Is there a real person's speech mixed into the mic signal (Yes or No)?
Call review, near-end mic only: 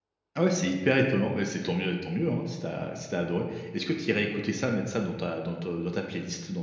Yes